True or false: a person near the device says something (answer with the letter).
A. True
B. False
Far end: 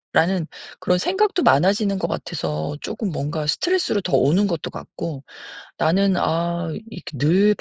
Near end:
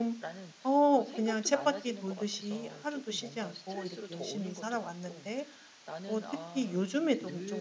A